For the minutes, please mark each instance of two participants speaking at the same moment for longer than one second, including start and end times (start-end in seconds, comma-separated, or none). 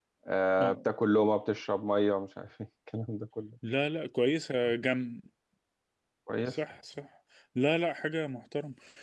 none